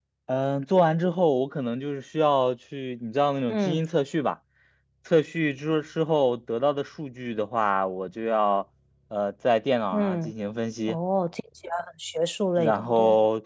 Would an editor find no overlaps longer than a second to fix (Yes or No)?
Yes